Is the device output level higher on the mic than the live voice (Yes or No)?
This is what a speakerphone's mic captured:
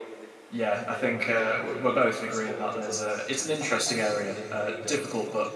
No